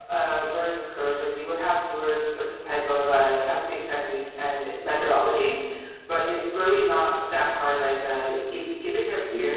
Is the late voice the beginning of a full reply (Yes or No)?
No